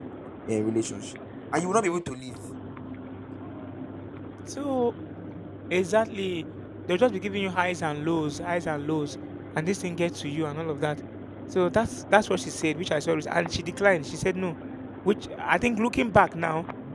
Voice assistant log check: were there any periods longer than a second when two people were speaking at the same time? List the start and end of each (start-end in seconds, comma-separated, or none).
none